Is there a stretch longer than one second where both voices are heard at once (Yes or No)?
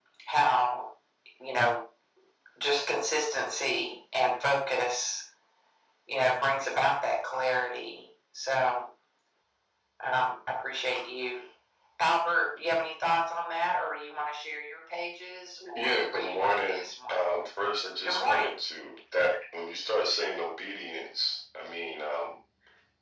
Yes